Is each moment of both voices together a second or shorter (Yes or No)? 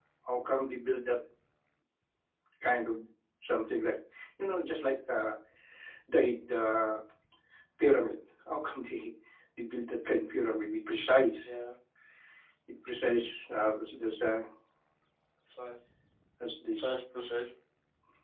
Yes